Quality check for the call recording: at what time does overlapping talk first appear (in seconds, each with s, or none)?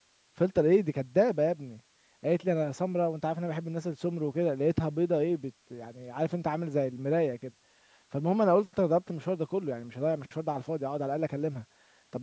none